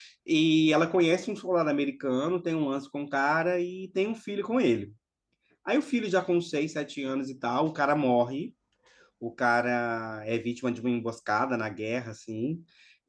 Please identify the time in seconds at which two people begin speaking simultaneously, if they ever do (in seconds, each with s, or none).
none